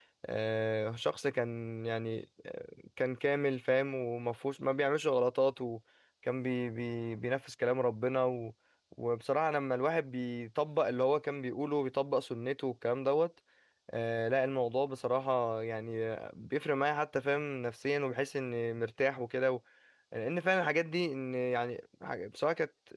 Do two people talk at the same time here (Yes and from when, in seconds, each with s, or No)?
No